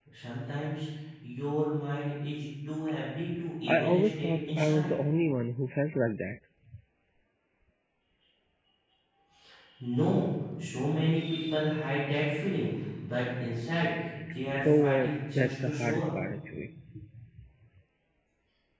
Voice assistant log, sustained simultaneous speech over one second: present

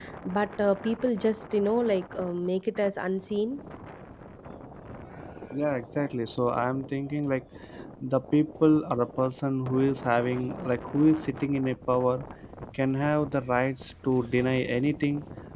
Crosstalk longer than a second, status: none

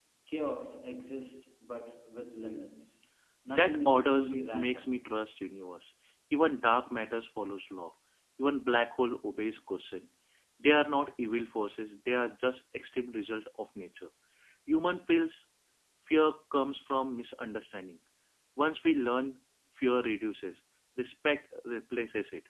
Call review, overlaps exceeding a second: present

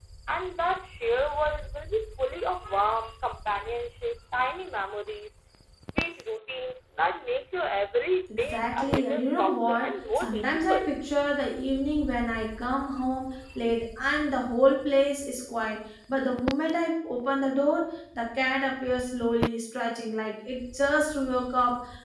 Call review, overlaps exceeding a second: present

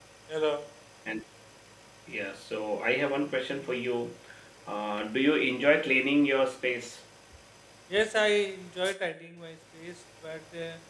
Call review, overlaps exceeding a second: none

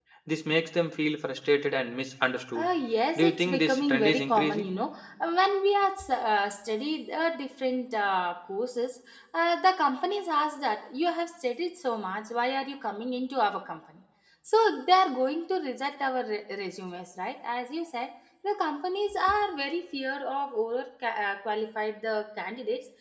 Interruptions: present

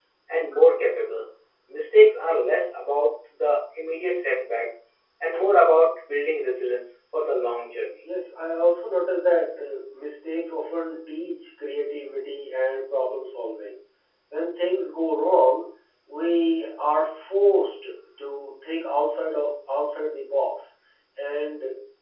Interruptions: none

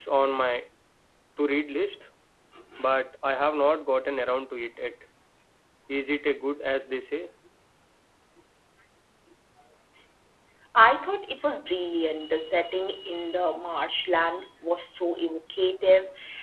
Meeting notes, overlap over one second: none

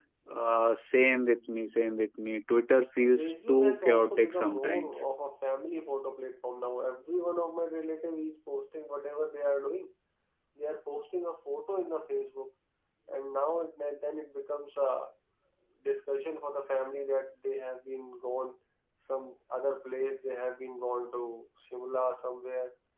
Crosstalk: present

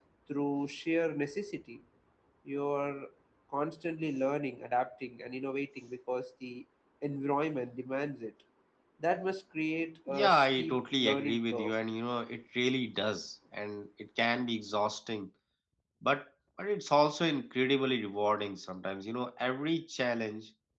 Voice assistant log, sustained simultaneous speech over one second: present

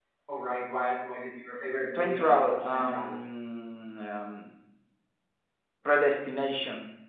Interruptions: present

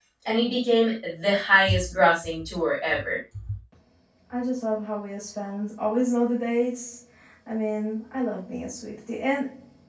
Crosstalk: none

